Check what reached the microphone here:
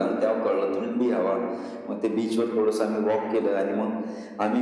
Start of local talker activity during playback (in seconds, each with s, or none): none